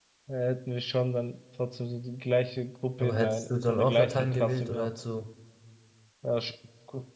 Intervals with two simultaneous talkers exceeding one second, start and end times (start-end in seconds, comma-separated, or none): 3.0-4.9